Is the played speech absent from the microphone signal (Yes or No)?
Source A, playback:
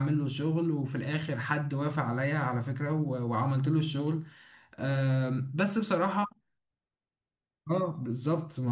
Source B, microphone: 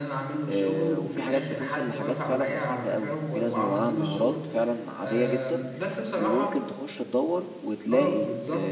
No